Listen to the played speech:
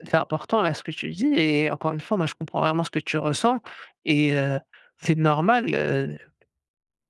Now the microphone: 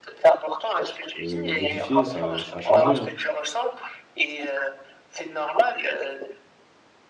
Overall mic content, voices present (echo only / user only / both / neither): both